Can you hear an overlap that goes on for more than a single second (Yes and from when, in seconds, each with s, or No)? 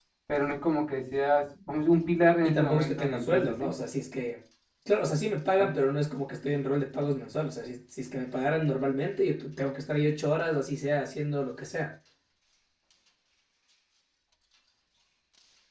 Yes, from 2.4 s